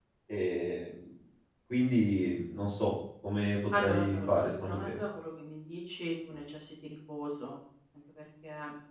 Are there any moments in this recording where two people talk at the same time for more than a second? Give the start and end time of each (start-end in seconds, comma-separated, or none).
3.8-5.0